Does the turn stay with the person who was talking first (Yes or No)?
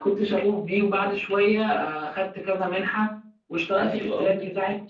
No